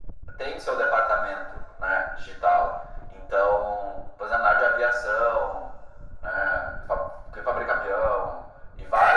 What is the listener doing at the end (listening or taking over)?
taking over